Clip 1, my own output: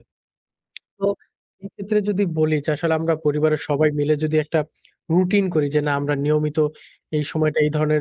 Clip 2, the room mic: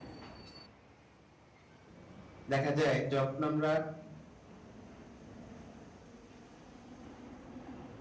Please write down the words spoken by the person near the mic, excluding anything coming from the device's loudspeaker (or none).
দেখা যায় যখন আমরা